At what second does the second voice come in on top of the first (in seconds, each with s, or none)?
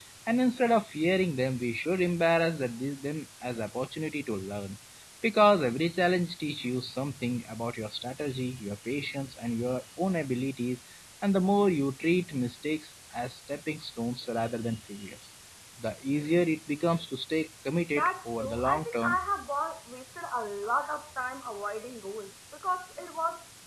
17.9 s